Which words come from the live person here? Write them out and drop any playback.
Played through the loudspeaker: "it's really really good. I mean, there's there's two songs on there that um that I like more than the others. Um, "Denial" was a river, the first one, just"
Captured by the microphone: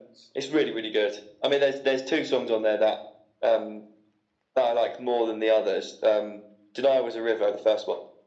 none

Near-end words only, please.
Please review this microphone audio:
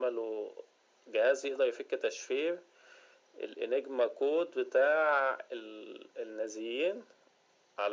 none

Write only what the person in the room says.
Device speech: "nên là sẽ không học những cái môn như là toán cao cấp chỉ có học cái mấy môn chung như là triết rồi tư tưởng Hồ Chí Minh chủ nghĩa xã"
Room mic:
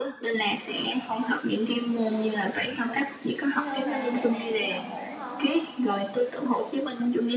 Hello bà, dạo này đi học ổn không?

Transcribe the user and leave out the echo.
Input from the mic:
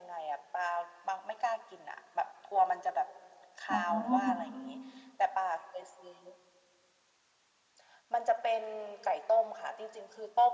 อ๋อ

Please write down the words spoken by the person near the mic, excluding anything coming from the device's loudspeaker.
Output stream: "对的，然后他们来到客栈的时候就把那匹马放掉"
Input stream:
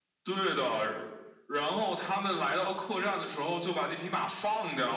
none

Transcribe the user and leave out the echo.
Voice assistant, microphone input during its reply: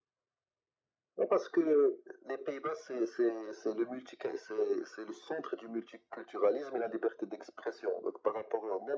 none

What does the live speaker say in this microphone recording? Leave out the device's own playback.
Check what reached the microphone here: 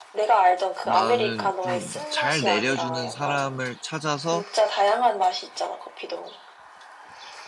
나는 좀 잘 내려주는 사람을 찾아서

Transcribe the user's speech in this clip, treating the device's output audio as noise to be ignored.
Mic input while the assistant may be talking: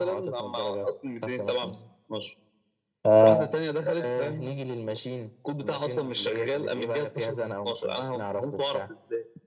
اه

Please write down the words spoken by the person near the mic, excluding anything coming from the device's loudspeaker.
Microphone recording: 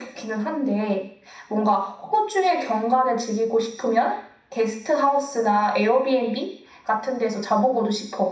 none

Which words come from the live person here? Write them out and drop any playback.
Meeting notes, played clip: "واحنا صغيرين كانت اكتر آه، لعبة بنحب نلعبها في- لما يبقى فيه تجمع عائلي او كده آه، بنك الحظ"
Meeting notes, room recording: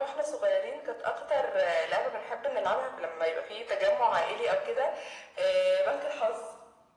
none

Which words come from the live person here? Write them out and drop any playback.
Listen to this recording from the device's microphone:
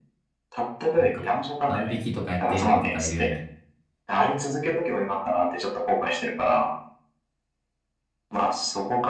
う。なんか、万引きとかやっている子とかいるよね。

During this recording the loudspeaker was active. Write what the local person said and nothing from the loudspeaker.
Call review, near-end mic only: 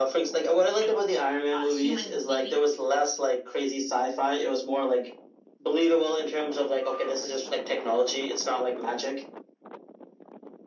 a human being.

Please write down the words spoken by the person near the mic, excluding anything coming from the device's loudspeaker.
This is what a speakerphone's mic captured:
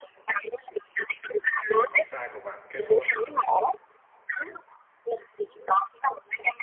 thì con trai của bạn kết hôn

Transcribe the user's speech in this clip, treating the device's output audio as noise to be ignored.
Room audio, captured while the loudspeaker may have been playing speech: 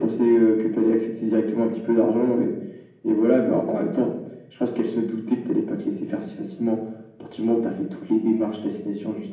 none

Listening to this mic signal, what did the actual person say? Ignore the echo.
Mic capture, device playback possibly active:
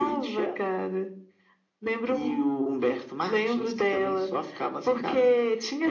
none

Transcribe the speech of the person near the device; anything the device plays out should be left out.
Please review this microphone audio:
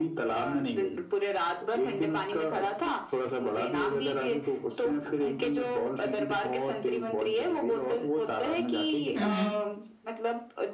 हम्म हम्म

